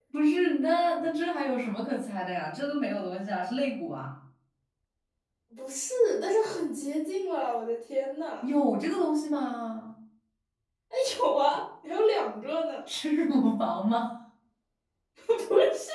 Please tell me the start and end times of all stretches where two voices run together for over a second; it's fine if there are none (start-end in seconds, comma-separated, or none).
none